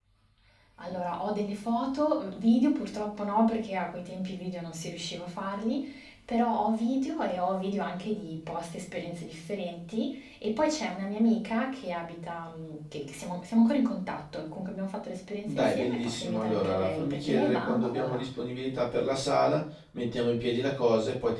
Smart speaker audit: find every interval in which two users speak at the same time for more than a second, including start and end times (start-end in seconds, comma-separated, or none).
15.5-18.2